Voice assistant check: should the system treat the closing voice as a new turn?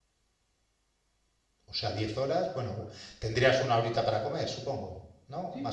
Yes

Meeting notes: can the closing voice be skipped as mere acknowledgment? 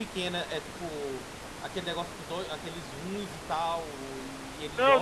No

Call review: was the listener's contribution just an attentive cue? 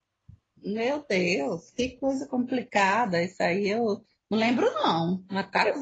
Yes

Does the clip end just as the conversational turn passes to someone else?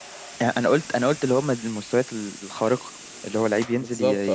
No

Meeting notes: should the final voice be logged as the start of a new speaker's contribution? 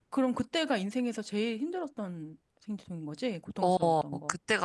Yes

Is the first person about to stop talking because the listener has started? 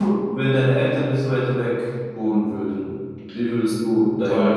Yes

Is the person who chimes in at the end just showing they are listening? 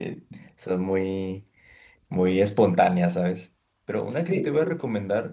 Yes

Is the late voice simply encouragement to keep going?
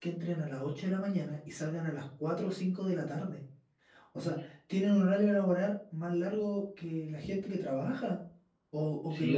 No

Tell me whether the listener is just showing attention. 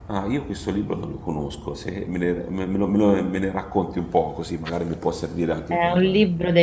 No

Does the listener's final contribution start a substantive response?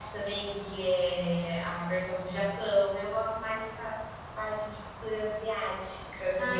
Yes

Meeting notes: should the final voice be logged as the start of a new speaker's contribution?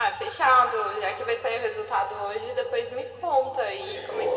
Yes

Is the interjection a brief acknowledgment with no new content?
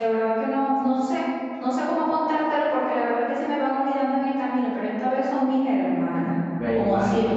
No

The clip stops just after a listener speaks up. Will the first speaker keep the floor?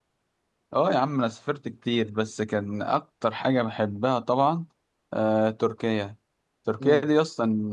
Yes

